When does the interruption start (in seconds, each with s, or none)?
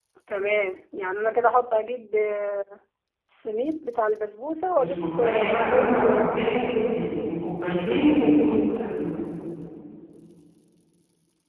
4.8 s